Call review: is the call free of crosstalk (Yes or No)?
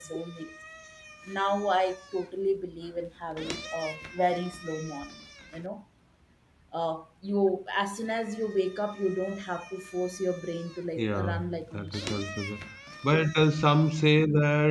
No